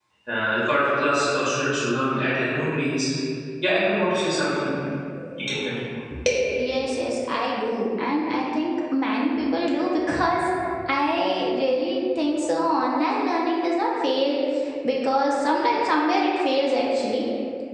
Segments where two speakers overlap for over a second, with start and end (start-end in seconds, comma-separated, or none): none